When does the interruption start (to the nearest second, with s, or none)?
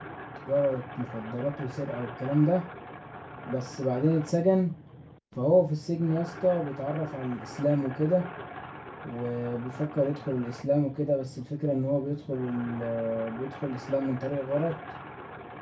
none